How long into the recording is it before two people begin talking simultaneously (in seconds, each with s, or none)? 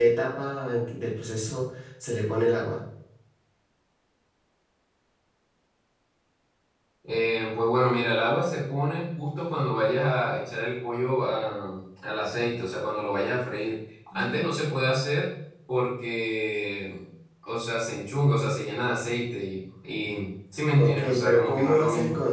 20.8 s